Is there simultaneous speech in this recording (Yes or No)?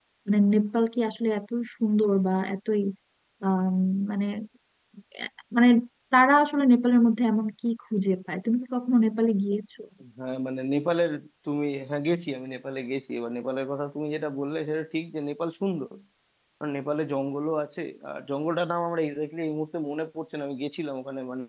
No